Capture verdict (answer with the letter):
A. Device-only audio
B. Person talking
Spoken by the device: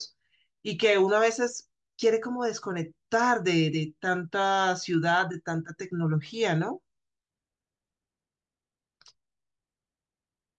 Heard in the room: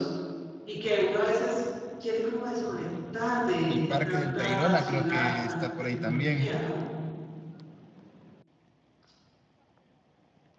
B